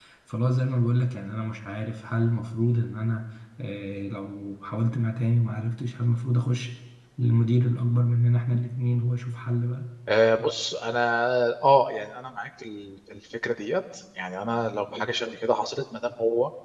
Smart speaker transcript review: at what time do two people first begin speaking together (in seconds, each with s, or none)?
none